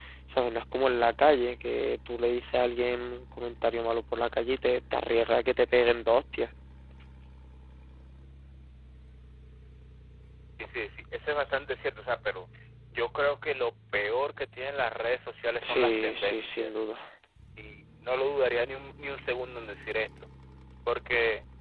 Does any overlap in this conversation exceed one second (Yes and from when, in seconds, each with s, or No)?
Yes, from 15.6 s